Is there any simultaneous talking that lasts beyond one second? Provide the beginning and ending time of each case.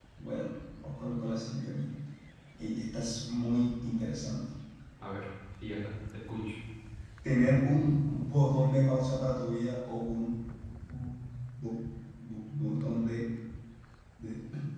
none

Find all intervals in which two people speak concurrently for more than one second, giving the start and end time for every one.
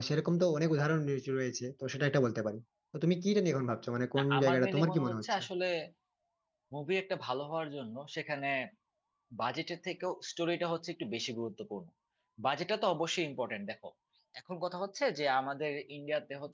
4.2-5.4

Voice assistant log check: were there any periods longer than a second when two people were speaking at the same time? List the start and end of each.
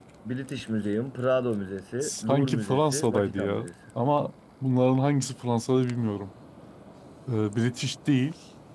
2.0-3.7

